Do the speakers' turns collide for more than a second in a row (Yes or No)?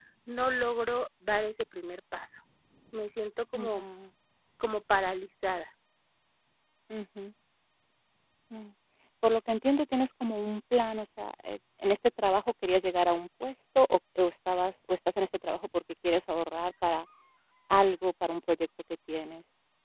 No